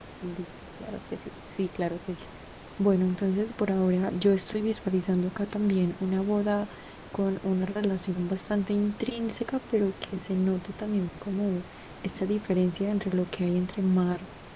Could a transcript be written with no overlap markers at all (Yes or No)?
Yes